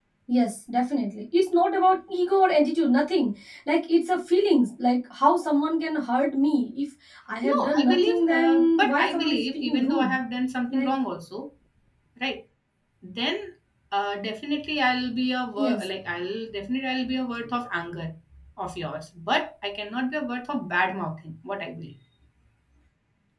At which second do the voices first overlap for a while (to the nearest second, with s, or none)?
7 s